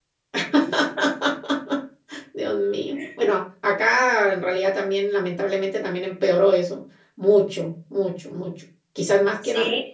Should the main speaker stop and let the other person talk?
No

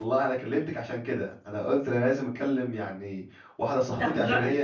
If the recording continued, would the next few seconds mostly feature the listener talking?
No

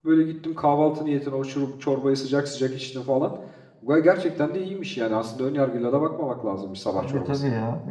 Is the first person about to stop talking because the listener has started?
Yes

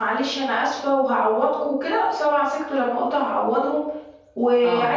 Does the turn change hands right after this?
No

